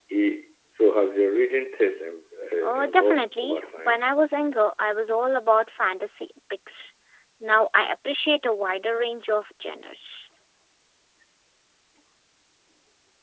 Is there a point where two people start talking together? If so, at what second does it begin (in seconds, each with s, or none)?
2.6 s